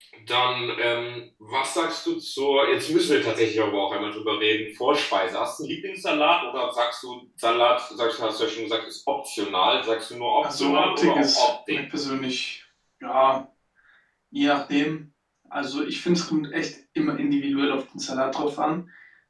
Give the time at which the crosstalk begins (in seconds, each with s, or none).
10.4 s